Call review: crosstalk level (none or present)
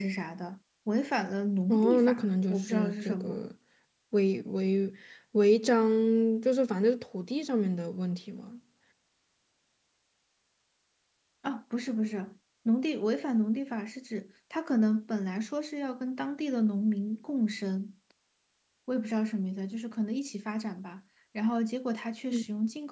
present